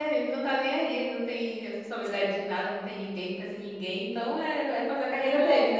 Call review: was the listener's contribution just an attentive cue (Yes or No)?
No